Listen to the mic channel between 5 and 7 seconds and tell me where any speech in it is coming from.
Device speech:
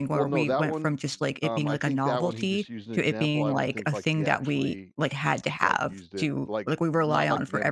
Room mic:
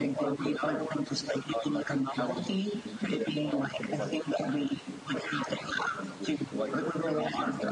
echo only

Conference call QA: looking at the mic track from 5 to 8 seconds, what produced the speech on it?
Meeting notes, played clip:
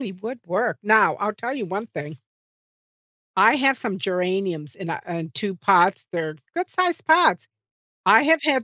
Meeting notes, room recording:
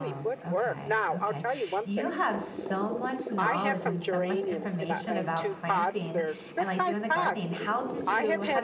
both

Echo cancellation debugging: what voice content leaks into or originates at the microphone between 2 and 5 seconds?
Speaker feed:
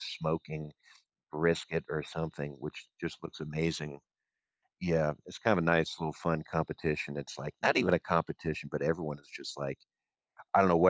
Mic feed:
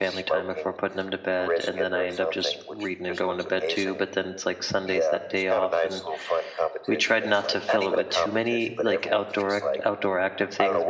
both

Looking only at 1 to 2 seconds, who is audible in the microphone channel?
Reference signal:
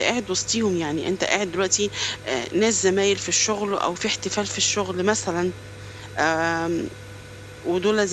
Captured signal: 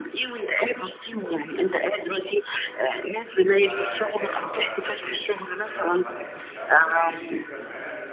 echo only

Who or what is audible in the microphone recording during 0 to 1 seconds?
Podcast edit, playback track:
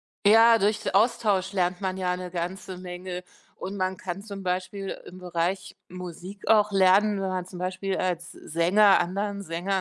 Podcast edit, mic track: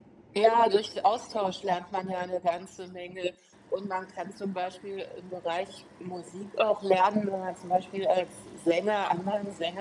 echo only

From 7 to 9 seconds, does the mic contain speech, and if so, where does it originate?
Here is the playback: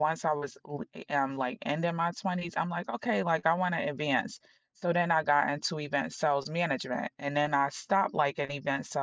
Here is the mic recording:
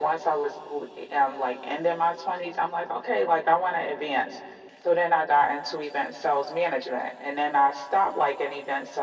echo only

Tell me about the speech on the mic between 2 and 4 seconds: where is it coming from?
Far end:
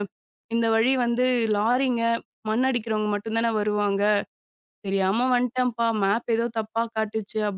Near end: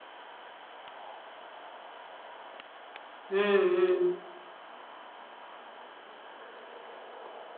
user only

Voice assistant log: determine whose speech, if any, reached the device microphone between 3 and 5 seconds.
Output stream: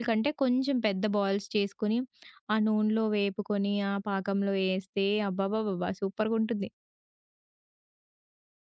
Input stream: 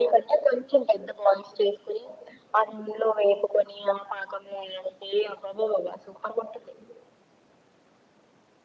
echo only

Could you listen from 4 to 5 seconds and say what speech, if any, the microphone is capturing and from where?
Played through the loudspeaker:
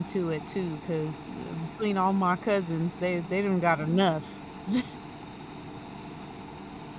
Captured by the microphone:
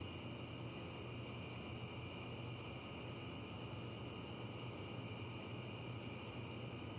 neither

